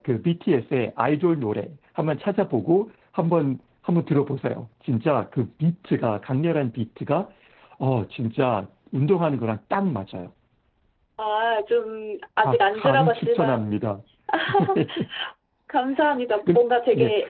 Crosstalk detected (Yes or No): Yes